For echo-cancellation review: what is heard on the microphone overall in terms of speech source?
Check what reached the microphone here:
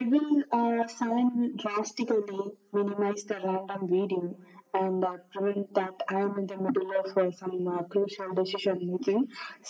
echo only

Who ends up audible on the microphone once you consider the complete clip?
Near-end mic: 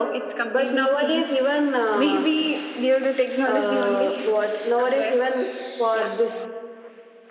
echo only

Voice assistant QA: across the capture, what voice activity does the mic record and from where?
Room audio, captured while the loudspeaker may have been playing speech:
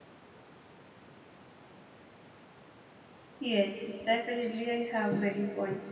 user only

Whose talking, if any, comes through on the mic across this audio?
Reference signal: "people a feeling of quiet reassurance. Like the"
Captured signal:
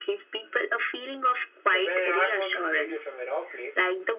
both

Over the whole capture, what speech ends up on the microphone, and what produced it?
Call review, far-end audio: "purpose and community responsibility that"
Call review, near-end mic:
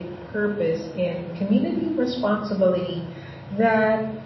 echo only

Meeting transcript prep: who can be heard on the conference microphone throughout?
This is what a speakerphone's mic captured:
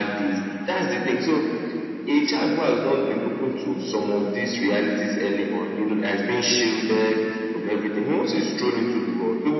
echo only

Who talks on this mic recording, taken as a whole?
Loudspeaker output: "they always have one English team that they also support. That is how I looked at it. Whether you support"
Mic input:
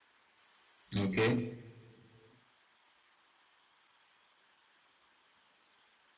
user only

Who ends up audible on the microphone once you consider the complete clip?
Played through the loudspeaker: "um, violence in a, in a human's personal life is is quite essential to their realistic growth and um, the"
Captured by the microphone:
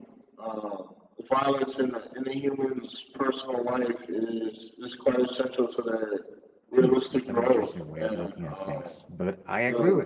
both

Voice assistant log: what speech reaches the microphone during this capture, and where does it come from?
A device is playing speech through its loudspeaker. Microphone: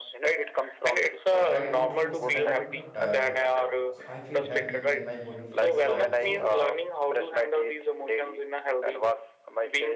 both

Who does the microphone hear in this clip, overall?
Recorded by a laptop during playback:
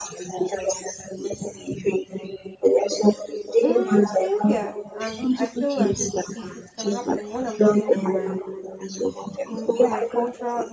both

